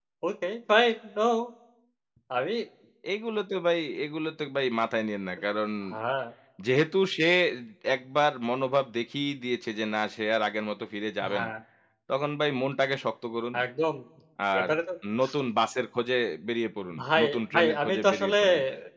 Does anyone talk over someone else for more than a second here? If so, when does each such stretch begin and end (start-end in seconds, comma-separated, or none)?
17.0-18.4